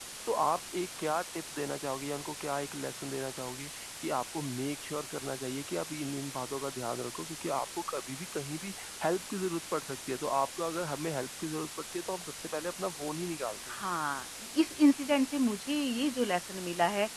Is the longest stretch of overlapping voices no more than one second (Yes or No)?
Yes